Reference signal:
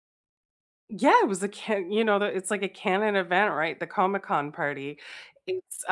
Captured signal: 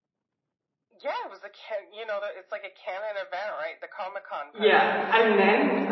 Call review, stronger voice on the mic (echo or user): user